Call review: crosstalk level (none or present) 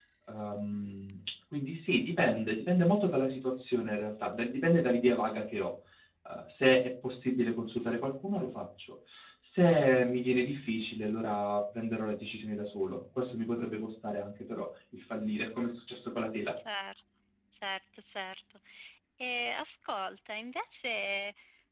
none